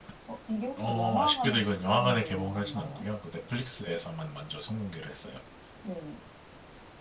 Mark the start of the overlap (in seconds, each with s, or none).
0.8 s